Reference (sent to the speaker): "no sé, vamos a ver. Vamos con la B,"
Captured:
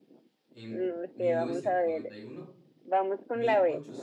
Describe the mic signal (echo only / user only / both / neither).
both